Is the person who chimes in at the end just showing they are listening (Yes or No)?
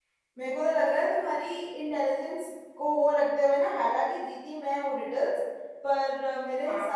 Yes